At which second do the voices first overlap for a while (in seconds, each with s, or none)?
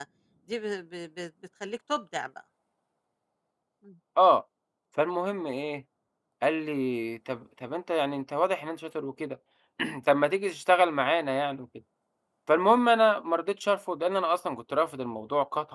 none